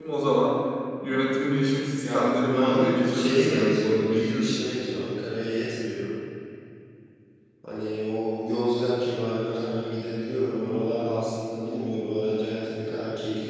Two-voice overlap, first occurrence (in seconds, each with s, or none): 2.0 s